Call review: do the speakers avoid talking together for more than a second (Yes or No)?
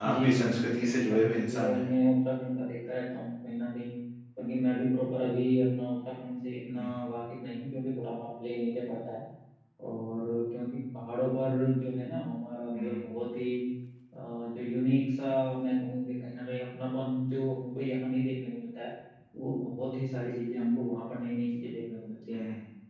No